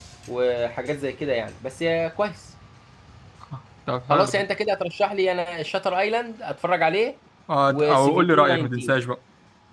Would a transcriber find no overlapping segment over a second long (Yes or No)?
No